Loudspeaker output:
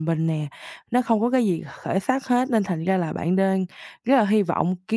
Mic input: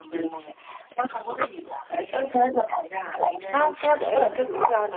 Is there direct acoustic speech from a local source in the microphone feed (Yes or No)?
Yes